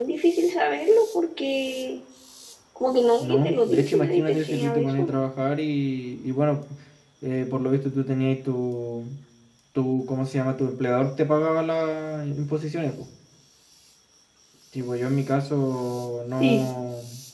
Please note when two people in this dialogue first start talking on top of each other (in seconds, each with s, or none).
3.2 s